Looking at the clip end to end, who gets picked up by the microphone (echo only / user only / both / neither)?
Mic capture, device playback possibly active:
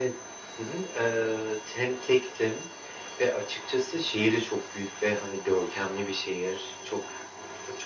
echo only